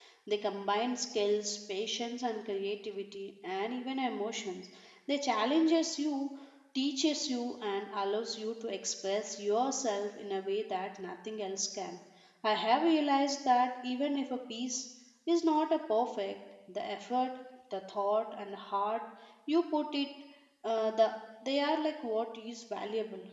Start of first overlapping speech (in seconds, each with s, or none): none